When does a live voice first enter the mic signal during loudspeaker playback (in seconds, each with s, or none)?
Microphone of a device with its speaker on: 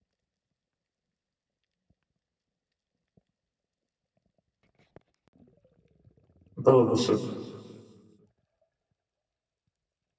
6.5 s